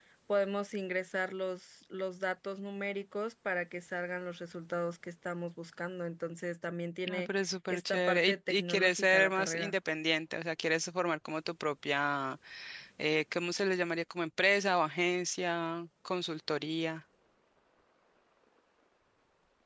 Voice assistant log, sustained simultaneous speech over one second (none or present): present